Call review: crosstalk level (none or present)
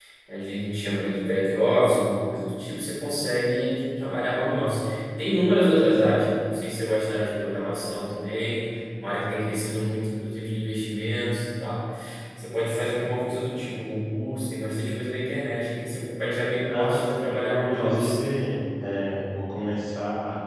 present